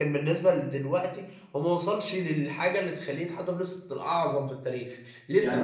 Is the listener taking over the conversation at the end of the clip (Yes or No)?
No